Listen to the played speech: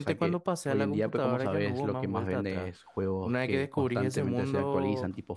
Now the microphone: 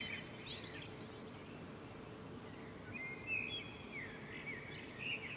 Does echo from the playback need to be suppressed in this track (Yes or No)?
No